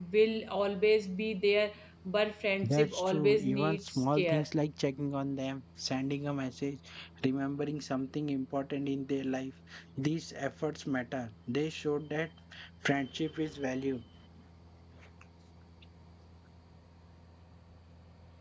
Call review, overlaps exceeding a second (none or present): present